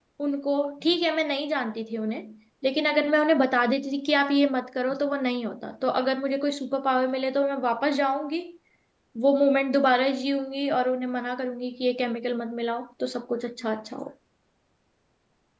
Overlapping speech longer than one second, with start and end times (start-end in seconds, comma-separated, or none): none